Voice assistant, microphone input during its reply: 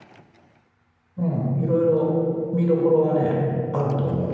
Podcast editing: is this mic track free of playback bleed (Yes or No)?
Yes